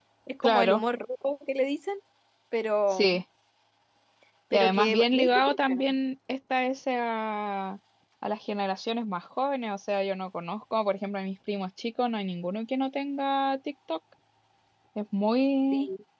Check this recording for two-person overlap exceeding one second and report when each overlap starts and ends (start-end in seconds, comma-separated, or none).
4.5-5.8